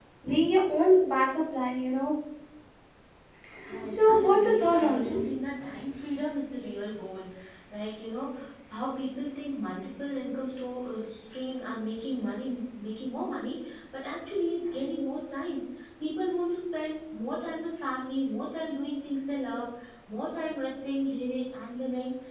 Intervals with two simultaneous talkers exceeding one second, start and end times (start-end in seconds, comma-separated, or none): 3.9-5.2